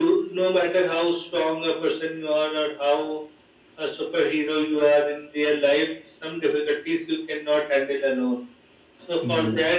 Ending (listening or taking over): listening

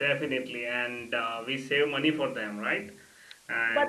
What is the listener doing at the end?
taking over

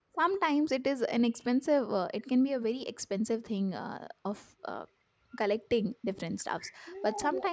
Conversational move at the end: listening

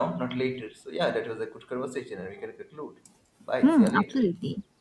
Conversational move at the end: taking over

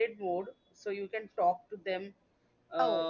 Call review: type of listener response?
taking over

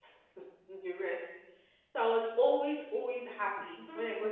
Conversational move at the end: taking over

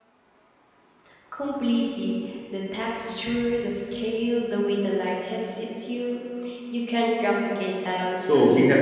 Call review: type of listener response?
taking over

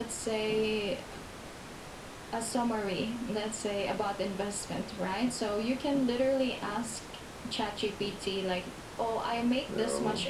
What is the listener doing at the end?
listening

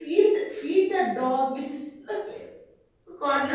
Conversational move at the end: taking over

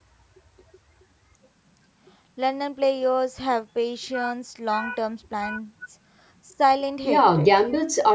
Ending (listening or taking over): taking over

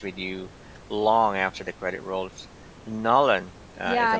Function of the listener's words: taking over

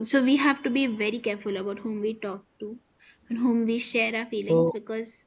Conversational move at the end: listening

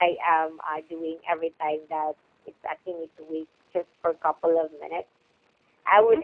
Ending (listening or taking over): listening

